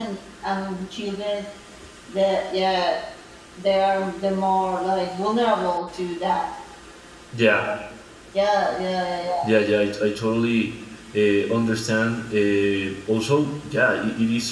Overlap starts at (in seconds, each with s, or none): none